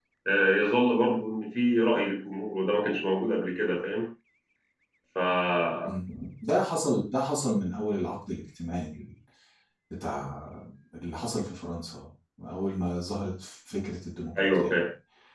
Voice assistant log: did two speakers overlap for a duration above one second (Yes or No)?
No